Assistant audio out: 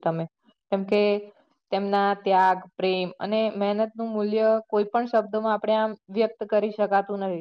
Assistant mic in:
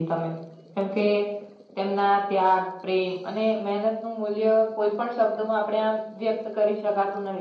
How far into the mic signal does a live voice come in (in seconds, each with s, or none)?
none